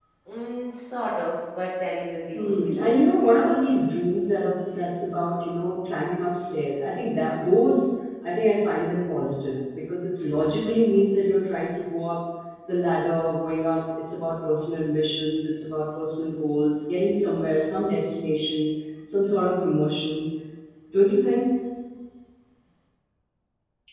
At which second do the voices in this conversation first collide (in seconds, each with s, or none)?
2.3 s